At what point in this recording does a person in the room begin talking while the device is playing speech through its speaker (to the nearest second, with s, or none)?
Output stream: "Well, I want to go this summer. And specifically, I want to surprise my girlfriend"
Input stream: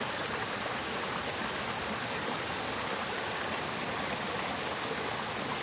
none